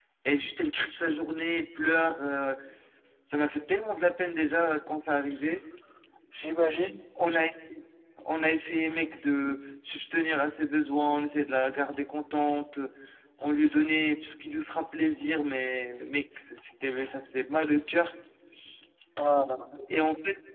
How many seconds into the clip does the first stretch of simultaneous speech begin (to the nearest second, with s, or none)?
none